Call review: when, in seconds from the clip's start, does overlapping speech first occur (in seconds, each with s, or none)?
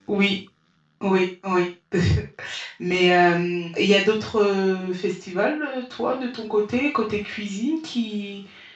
none